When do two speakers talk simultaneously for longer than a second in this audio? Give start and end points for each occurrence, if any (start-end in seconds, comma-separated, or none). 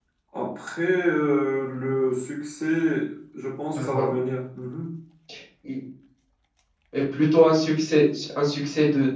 none